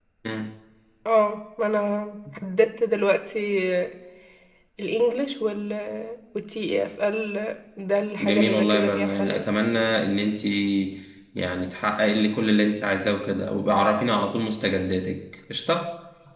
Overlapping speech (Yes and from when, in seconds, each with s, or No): Yes, from 8.2 s